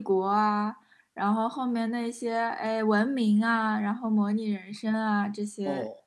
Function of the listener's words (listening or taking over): listening